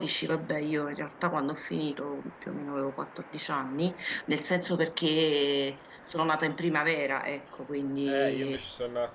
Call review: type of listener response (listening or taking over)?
taking over